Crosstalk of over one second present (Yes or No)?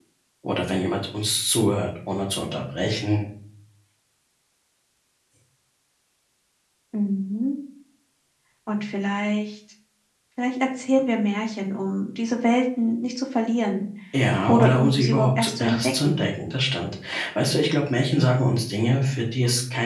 Yes